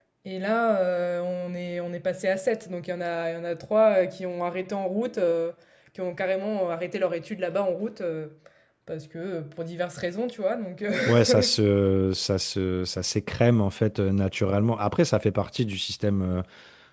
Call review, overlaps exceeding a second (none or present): none